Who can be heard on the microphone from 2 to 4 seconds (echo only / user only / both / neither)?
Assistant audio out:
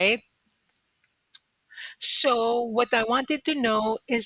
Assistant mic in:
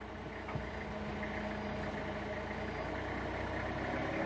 neither